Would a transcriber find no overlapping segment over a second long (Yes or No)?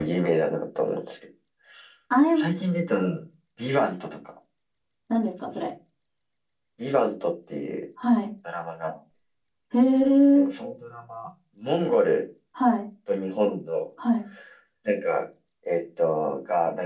Yes